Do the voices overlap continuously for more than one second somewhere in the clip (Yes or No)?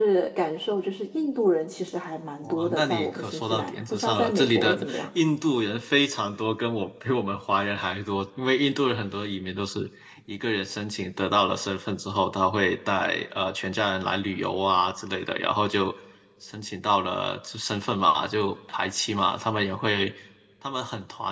Yes